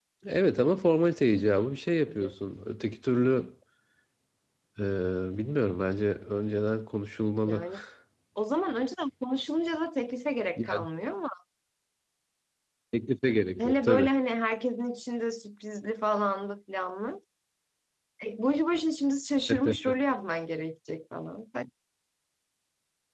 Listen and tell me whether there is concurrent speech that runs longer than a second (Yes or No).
No